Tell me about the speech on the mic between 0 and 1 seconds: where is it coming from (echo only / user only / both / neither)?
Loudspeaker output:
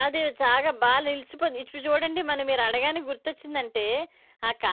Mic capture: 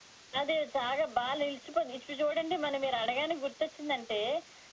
echo only